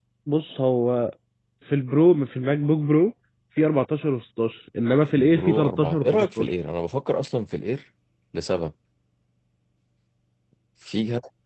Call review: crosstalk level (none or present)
present